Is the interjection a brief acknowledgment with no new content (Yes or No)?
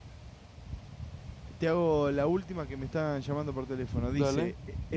Yes